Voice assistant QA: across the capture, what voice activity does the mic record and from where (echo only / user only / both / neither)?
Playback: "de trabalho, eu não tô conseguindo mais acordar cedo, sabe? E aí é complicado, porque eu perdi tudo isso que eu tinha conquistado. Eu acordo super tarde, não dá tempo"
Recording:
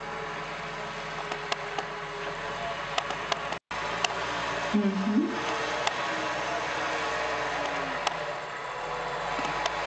user only